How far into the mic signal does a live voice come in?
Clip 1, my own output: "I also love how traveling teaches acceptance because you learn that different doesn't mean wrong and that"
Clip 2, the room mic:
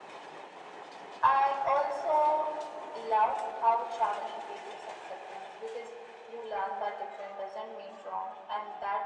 none

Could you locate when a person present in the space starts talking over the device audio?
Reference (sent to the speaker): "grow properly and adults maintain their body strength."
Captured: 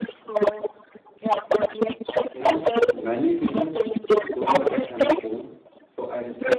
2 s

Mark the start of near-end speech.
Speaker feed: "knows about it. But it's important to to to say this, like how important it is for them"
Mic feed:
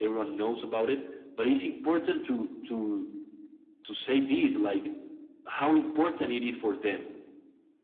none

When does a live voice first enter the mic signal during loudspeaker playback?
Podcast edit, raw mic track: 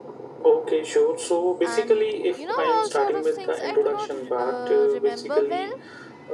2 s

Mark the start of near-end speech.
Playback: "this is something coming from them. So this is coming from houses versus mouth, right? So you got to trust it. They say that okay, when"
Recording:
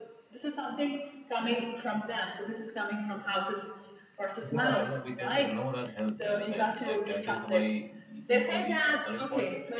4 s

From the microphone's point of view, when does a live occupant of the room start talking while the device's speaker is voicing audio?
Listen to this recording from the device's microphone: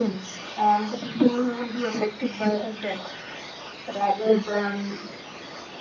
none

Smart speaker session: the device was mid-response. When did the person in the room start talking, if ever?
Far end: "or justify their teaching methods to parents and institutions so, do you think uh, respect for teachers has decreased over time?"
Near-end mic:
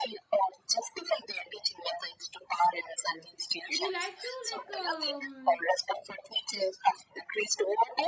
4 s

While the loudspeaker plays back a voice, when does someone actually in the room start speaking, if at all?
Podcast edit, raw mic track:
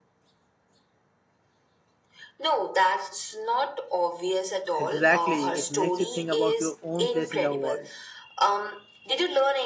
5 s

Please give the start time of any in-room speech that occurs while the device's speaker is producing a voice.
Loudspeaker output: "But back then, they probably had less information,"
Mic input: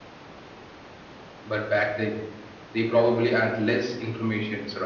none

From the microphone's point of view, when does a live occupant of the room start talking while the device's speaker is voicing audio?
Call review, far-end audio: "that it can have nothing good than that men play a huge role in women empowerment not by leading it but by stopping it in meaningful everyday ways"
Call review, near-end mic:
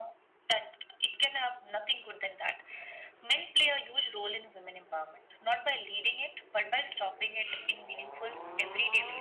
none

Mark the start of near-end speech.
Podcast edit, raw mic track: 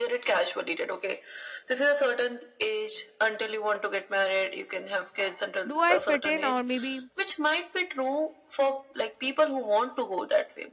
6 s

